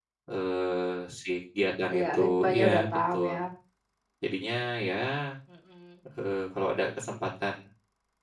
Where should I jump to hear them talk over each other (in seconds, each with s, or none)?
1.9 s